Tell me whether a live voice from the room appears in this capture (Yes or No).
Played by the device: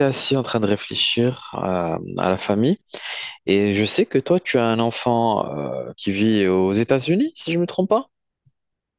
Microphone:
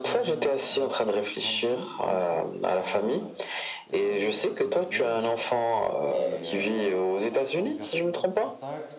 Yes